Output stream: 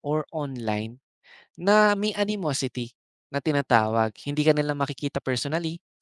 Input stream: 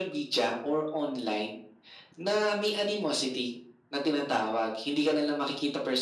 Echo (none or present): present